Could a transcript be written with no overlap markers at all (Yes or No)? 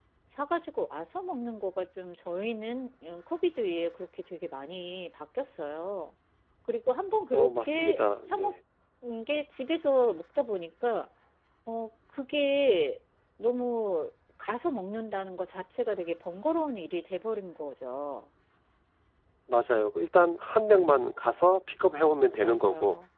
No